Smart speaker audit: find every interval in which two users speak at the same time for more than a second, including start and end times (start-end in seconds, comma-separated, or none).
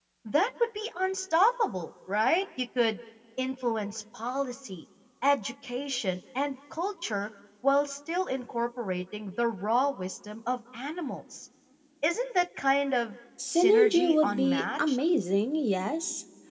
13.4-15.0